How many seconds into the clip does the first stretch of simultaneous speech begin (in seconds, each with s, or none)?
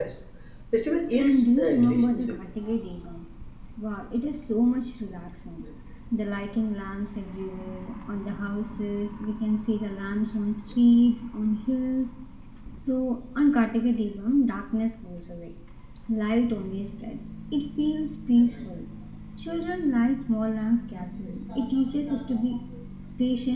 1.2 s